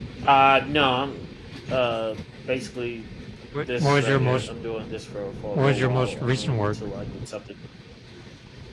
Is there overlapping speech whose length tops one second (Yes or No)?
Yes